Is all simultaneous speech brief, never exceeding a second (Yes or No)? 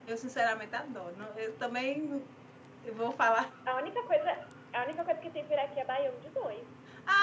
Yes